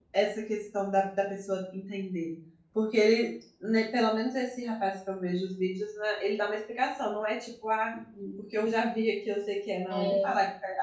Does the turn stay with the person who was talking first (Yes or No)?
Yes